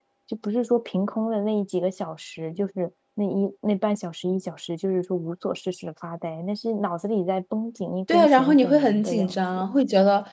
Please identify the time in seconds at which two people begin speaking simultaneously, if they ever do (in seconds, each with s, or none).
8.1 s